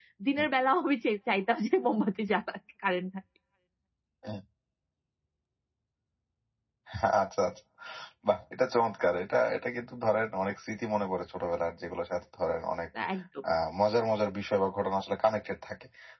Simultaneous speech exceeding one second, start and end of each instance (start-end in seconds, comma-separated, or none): none